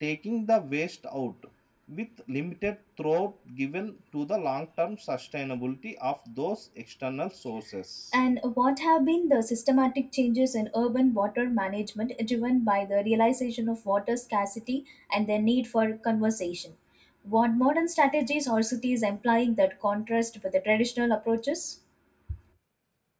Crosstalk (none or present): none